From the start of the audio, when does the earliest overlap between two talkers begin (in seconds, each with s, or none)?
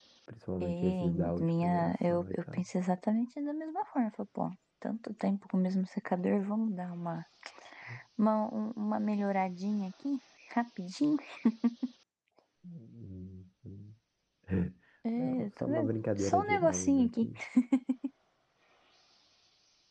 0.6 s